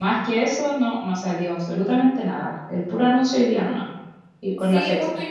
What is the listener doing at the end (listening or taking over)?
taking over